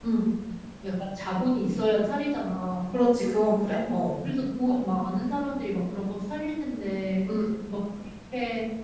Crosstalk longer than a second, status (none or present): none